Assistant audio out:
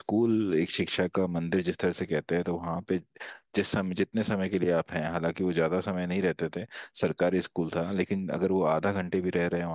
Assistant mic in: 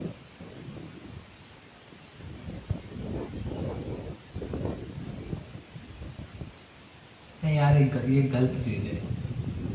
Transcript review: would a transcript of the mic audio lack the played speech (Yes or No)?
Yes